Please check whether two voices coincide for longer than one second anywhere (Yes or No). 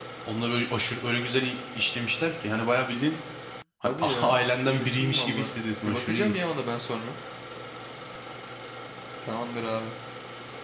Yes